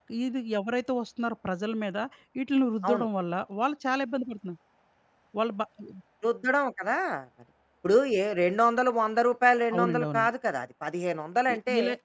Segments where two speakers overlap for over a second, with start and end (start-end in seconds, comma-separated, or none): none